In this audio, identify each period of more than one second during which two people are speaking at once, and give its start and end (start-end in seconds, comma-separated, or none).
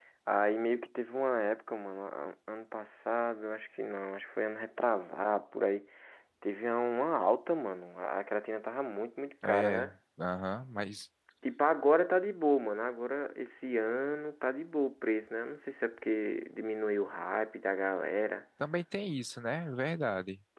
none